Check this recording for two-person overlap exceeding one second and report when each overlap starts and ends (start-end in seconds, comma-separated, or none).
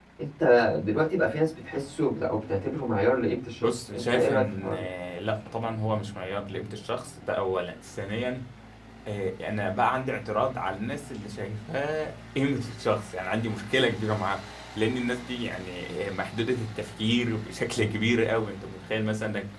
3.5-4.8